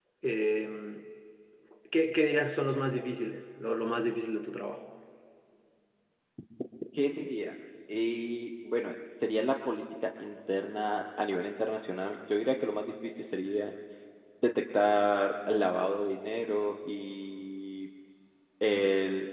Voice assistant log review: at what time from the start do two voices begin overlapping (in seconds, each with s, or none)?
none